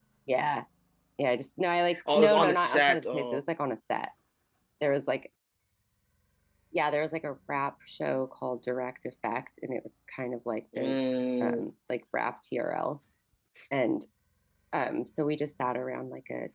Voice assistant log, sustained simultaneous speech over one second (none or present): present